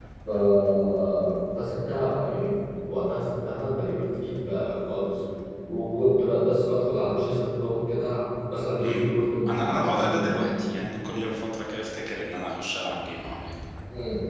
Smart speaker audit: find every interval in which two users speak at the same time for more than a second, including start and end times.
8.8-10.4

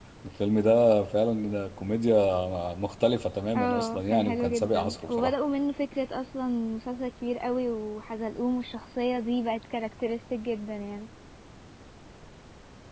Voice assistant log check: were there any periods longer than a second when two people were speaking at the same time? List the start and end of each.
3.6-5.3

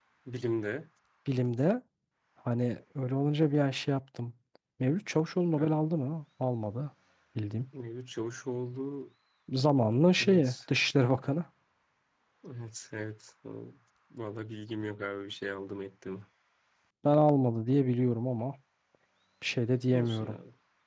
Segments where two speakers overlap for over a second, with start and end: none

